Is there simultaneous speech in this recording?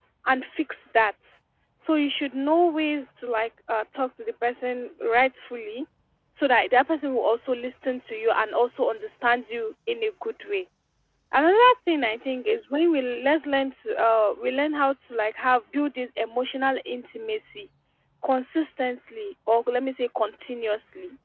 No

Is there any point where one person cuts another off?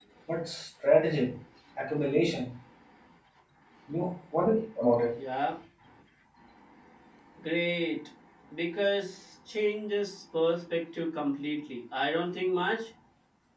No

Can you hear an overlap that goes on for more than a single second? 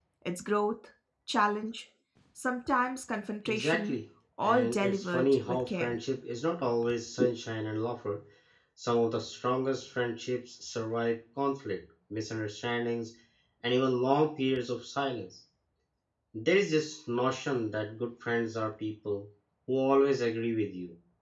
Yes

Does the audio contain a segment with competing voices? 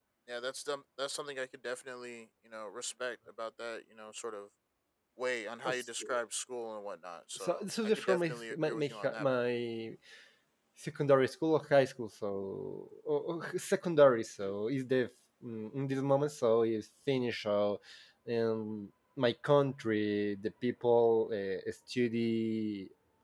Yes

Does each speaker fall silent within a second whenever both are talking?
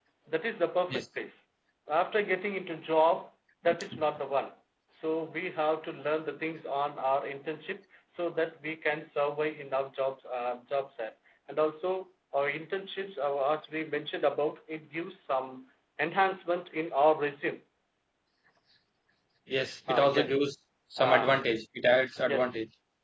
Yes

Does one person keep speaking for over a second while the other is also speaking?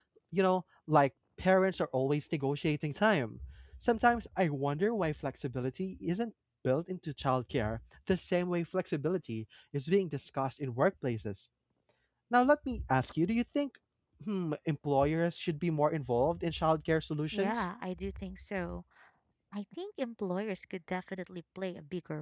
No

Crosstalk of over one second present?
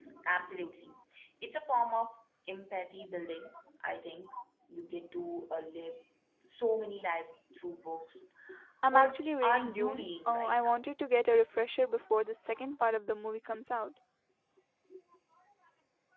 Yes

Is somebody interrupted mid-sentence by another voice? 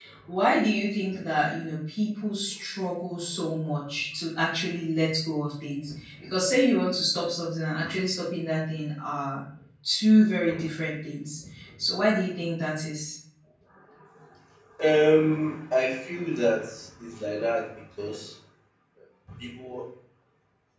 No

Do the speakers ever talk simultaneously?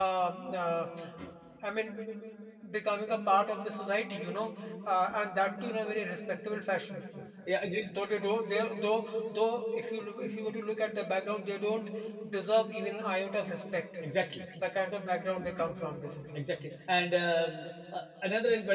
No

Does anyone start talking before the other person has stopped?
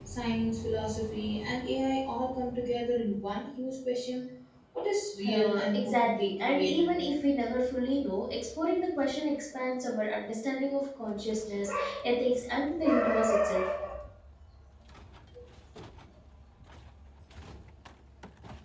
Yes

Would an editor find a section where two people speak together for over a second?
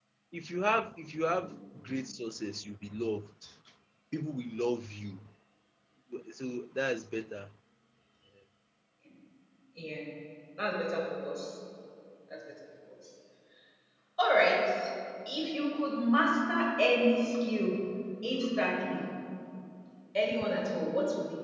No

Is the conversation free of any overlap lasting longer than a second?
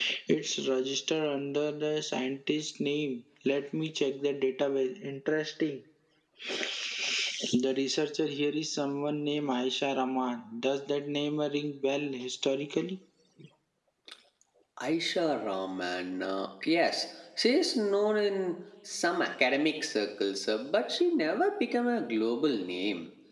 Yes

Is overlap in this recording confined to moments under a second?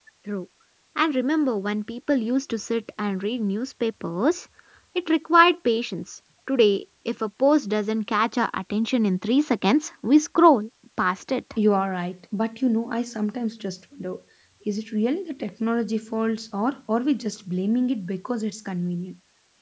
Yes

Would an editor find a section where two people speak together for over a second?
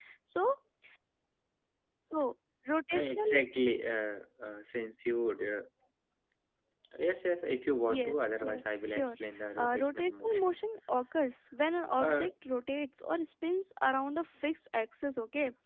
Yes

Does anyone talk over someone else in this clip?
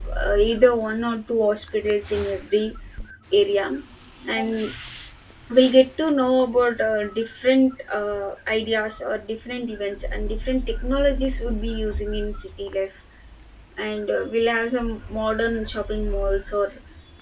No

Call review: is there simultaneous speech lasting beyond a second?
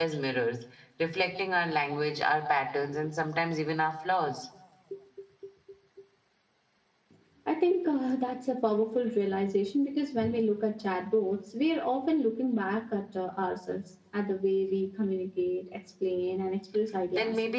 No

